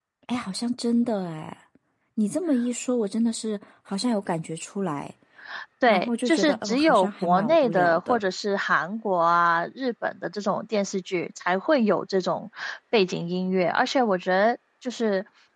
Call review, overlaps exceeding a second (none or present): present